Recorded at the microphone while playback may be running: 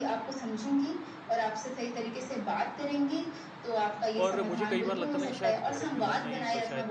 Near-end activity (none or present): present